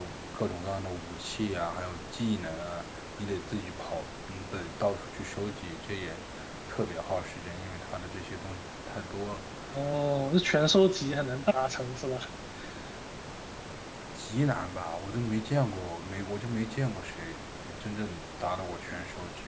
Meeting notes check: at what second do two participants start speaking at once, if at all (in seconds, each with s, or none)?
none